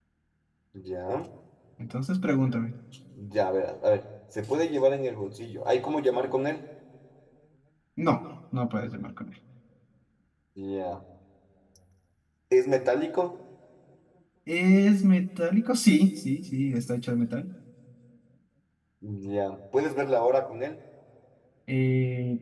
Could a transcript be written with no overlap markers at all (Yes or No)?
Yes